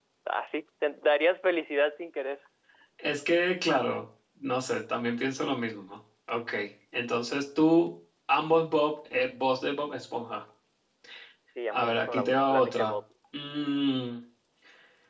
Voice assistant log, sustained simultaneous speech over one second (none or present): present